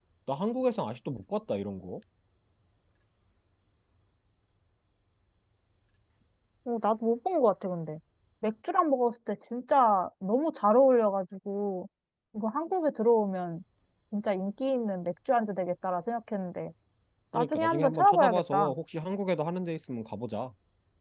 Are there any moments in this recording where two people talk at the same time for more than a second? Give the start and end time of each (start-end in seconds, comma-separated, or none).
17.3-18.7